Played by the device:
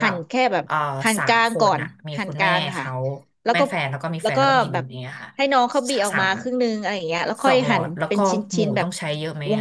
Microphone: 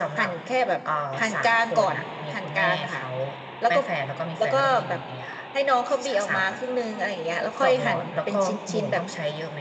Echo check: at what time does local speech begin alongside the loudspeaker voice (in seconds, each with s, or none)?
none